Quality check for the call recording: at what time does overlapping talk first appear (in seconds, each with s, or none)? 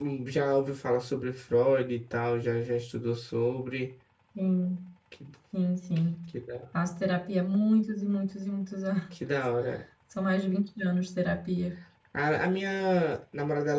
none